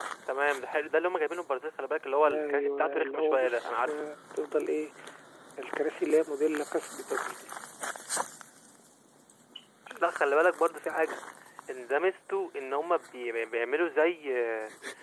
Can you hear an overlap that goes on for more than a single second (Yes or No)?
Yes